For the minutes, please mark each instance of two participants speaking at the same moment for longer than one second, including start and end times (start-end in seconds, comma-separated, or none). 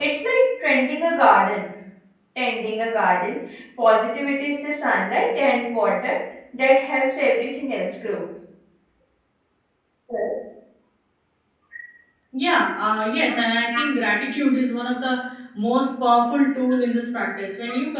none